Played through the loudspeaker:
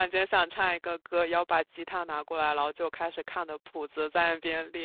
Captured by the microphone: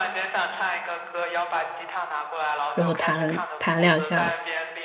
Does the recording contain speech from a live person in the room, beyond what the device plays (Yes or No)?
Yes